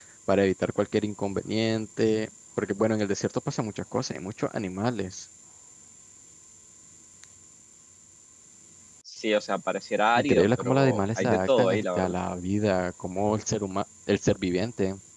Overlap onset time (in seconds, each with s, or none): 10.2 s